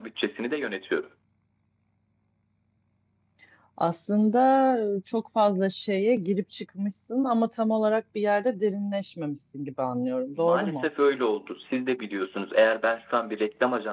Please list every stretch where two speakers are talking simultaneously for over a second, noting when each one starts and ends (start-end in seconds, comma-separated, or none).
none